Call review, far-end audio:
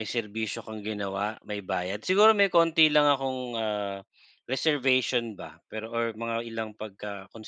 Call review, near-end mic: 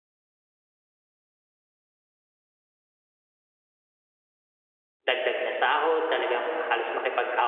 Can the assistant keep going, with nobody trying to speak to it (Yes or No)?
No